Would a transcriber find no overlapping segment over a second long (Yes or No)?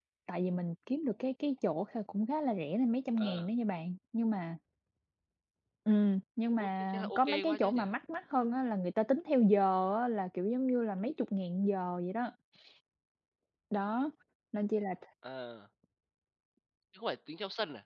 No